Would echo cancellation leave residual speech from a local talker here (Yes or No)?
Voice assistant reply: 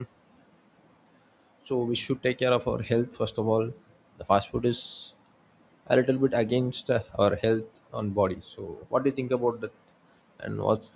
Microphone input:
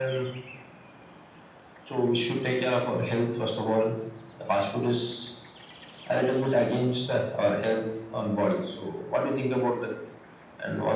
No